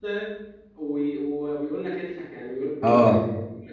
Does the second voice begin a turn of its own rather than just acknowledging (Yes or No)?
No